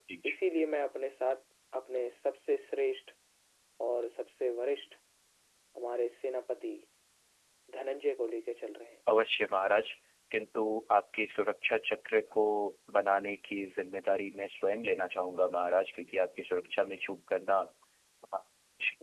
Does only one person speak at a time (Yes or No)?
Yes